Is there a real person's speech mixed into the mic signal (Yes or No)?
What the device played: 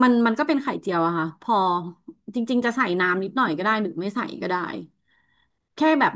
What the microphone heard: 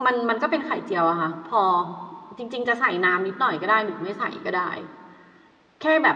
No